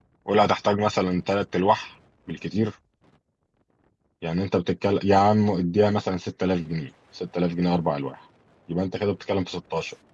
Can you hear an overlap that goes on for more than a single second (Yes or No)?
No